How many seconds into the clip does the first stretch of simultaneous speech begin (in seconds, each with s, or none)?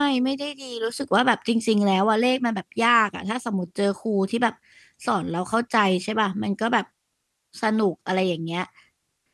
none